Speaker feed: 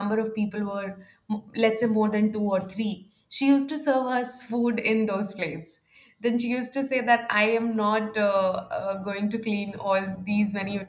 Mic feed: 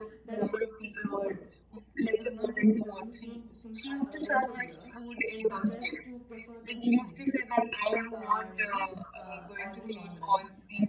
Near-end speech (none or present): present